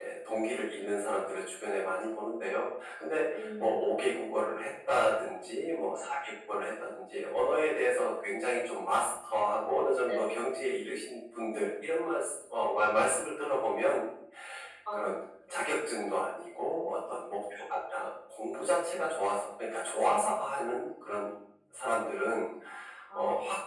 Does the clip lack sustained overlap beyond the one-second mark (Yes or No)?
Yes